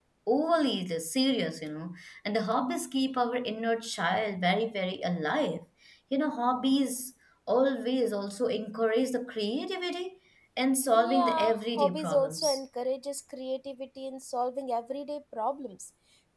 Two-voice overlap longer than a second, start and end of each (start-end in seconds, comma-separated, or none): 10.9-12.6